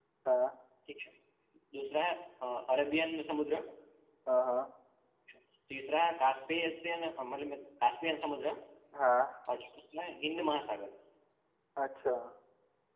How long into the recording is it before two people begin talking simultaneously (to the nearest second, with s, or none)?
none